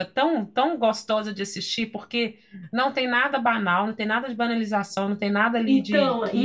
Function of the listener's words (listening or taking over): taking over